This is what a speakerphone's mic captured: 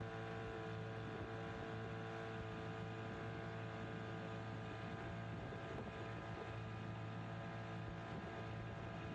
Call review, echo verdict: none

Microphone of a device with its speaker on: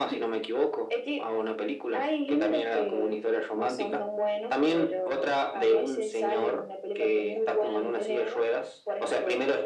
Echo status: present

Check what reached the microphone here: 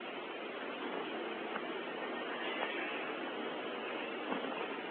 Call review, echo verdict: none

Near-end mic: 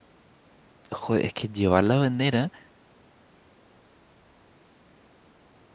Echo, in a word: none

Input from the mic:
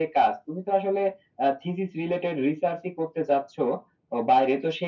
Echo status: present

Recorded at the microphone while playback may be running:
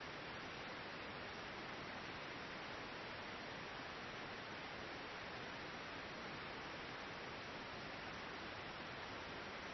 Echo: none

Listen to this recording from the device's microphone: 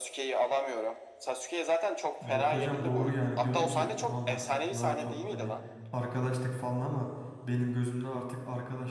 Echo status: present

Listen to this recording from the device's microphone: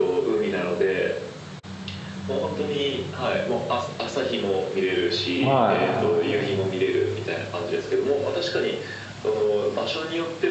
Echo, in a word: present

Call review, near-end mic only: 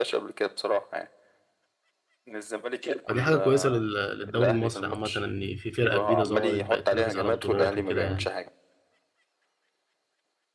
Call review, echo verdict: present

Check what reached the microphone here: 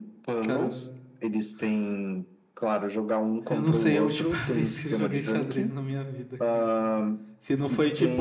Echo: present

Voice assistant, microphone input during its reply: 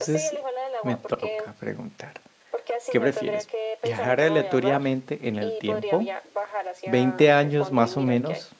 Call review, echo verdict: present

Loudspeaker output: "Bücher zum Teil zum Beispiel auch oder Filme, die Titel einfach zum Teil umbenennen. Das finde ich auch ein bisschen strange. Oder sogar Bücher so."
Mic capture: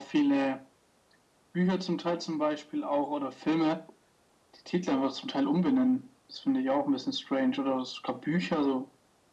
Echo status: present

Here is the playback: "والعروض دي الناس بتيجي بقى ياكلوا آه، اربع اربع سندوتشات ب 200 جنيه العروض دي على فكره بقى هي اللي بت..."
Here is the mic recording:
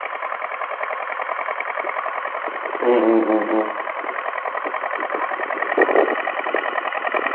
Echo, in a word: none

